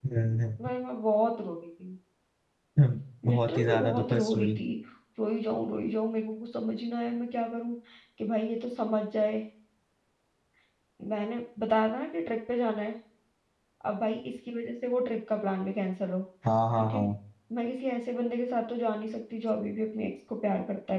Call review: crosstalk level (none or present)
present